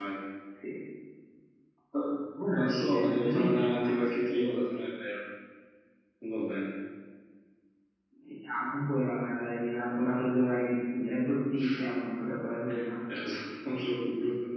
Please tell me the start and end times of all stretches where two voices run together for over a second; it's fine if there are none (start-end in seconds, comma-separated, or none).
2.6-4.0